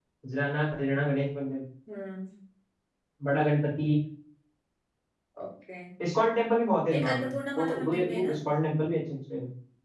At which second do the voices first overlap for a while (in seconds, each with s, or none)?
7.0 s